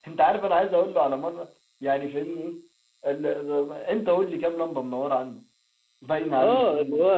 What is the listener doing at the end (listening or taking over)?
taking over